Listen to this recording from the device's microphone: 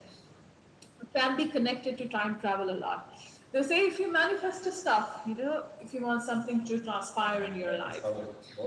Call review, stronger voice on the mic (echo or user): echo